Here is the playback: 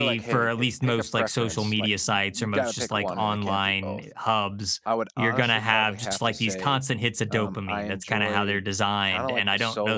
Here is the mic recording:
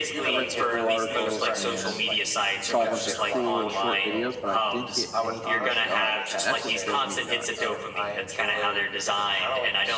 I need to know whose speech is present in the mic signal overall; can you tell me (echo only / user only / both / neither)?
both